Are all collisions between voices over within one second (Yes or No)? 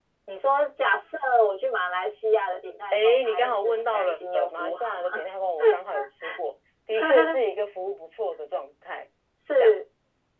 No